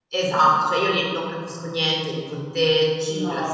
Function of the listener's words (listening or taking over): listening